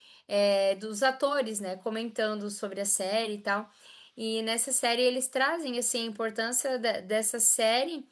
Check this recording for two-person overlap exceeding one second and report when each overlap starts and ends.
none

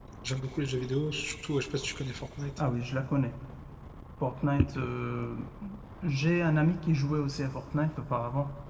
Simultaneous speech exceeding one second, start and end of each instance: none

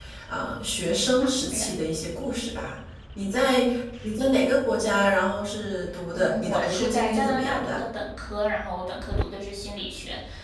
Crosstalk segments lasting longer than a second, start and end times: 6.2-7.8

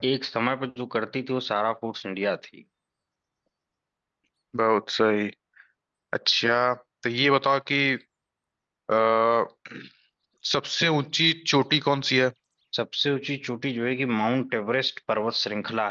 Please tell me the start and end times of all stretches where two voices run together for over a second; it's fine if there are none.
none

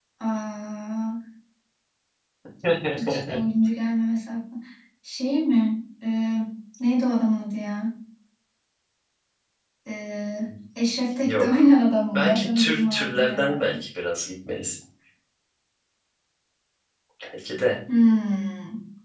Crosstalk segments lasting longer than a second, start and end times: 12.1-13.8

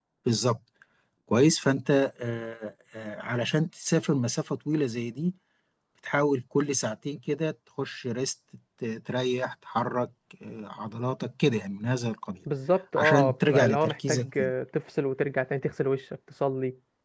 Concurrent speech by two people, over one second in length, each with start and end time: 13.0-14.5

